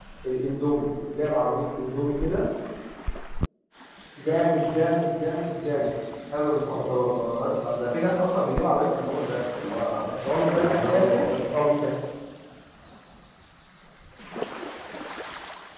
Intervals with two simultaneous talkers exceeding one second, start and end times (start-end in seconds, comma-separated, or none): 10.1-11.3